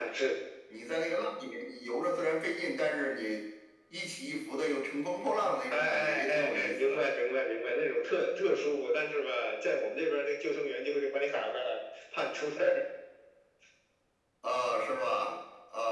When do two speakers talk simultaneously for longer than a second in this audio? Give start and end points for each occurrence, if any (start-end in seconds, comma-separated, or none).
5.7-7.0